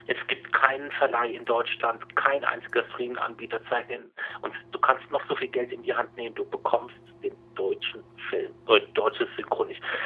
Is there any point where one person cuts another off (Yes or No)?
No